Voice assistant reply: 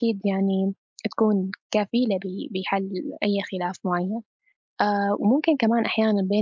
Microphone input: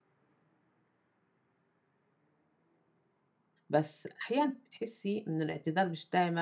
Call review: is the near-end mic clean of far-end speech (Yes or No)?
Yes